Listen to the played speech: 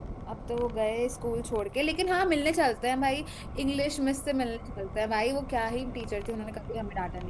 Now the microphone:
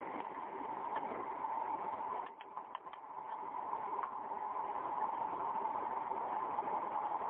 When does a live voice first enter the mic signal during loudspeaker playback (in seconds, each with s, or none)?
none